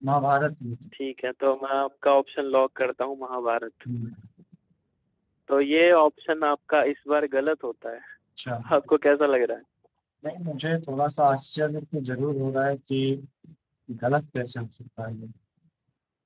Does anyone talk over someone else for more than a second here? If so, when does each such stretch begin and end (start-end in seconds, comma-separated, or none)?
none